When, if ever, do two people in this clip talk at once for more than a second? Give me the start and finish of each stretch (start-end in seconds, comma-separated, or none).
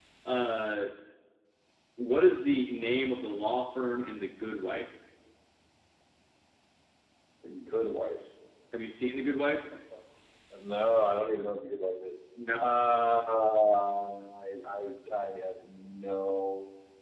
none